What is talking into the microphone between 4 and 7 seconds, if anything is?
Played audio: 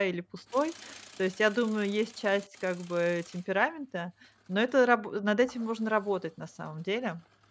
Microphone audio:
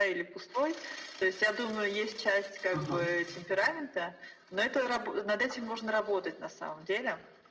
echo only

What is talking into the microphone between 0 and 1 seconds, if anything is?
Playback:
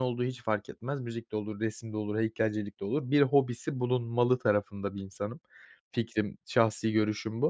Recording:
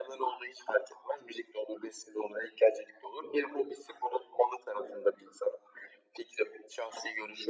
echo only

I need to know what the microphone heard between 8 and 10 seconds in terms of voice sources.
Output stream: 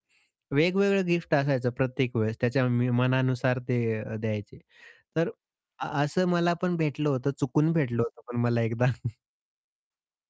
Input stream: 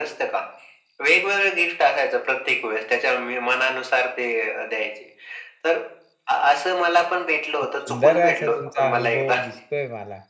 both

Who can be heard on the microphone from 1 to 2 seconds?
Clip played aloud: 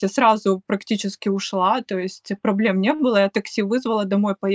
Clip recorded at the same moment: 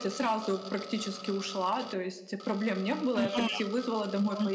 echo only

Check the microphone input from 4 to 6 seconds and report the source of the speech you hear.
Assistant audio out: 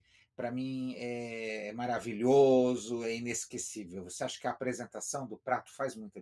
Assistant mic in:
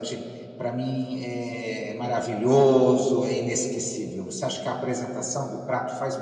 echo only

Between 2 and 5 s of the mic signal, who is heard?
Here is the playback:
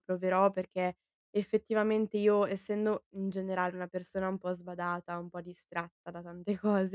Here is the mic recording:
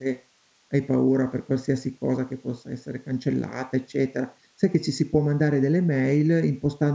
user only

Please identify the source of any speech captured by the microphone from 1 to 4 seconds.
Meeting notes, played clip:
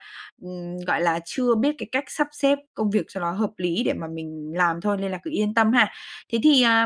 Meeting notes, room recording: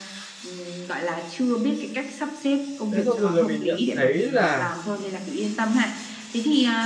both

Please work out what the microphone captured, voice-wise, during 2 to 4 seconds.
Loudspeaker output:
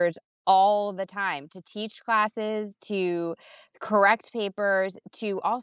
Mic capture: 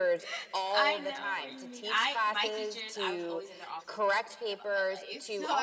both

